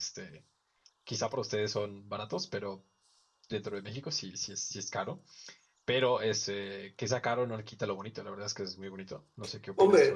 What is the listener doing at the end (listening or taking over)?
taking over